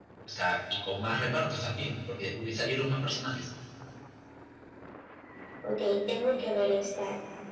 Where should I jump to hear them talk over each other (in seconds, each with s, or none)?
none